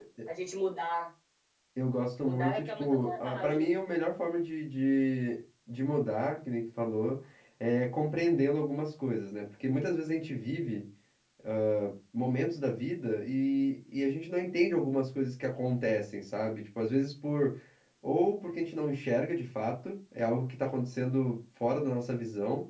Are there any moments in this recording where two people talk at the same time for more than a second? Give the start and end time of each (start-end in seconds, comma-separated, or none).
2.2-3.7